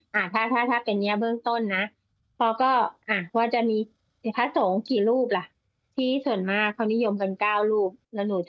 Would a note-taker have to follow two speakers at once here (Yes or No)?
No